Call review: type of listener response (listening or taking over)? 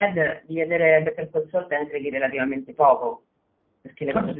taking over